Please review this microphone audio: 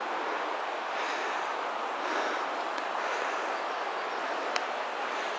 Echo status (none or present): none